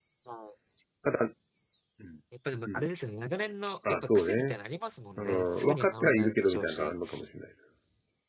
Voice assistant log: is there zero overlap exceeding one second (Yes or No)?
No